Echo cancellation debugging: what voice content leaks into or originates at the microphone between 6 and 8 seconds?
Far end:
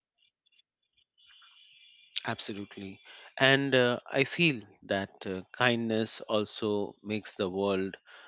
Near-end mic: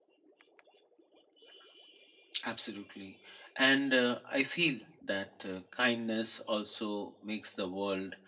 echo only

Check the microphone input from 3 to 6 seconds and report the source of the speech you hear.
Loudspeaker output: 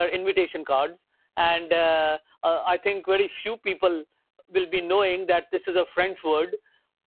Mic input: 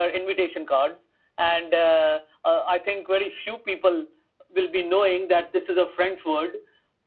echo only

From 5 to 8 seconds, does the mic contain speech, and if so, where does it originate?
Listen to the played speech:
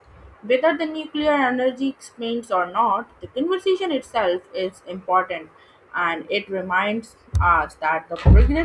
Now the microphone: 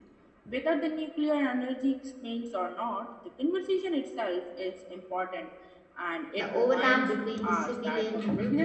both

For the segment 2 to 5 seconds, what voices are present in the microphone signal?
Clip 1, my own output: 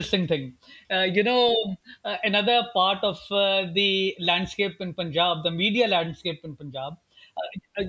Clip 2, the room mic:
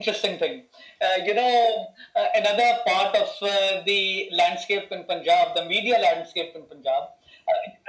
echo only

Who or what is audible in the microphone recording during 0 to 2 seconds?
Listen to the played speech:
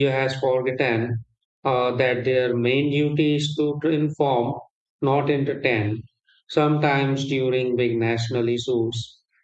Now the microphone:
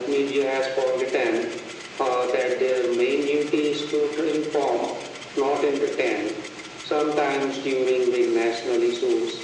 echo only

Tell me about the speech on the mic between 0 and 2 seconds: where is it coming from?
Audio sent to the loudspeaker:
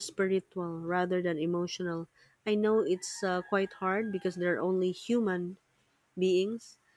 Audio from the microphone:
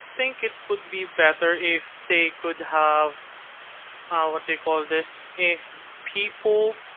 user only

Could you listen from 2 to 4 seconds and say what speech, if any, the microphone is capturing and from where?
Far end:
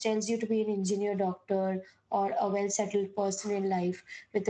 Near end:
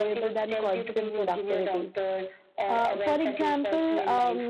both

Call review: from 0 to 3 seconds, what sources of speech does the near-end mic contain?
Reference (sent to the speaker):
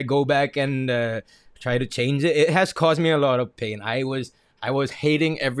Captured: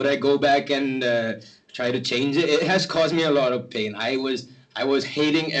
echo only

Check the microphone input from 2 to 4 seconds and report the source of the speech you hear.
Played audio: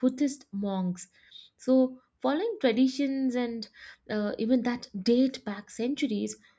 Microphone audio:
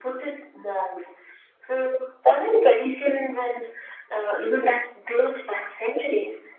echo only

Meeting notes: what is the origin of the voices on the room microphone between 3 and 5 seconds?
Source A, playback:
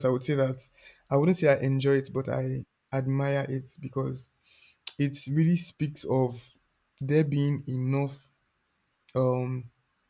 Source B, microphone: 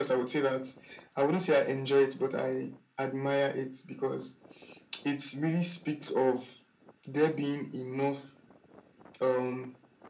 echo only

